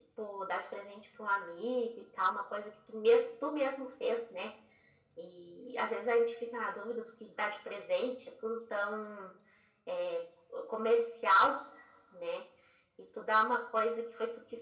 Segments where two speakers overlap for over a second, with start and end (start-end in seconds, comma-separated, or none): none